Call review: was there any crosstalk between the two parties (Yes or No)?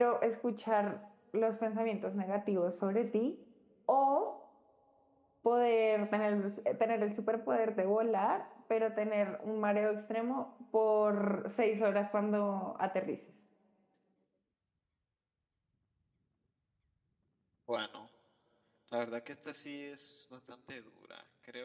No